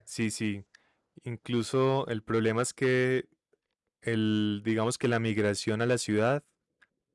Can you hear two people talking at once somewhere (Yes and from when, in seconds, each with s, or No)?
No